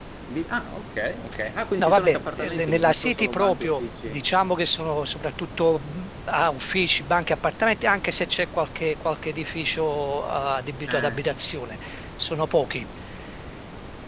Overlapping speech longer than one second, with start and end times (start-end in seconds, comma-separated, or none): 1.8-4.2